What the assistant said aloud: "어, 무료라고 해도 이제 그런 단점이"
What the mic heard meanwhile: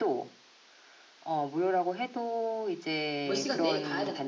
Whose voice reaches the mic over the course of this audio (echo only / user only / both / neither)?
both